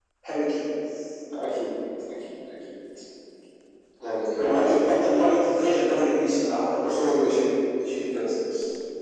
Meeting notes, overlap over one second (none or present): none